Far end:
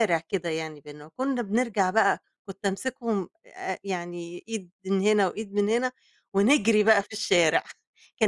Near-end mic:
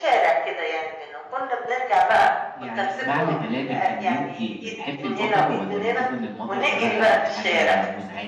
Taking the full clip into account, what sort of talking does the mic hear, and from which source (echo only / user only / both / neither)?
both